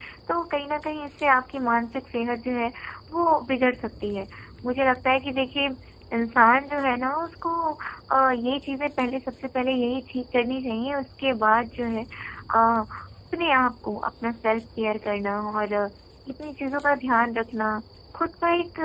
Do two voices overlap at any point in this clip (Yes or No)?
No